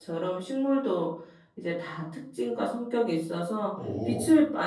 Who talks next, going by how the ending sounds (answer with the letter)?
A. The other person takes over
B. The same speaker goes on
B